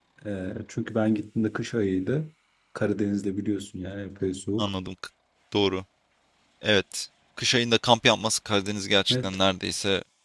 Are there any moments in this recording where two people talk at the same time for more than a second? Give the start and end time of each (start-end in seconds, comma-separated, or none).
none